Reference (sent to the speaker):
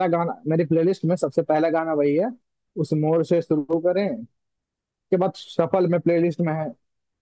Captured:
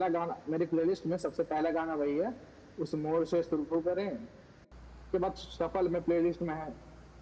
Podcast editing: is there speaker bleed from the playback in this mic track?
Yes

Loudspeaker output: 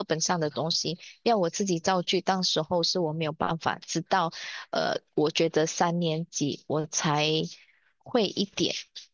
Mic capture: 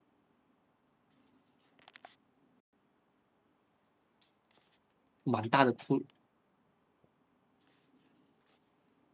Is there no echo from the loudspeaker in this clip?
Yes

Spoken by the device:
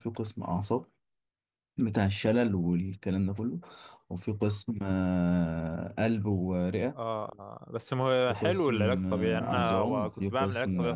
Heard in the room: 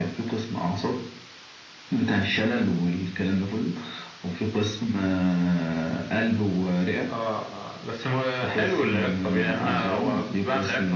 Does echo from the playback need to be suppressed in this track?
Yes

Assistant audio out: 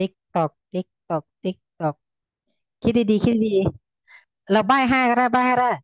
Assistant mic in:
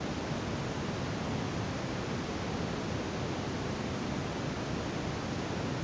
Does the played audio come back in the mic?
No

